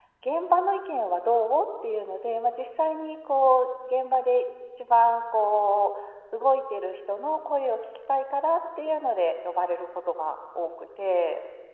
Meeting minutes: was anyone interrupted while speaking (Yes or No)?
No